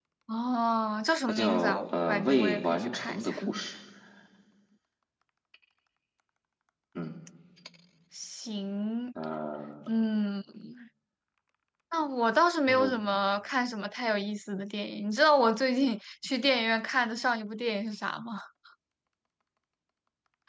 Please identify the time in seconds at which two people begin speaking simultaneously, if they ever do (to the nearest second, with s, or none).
1 s